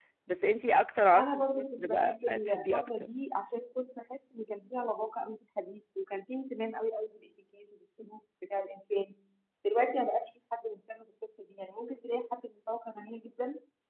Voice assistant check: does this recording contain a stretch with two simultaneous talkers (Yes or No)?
Yes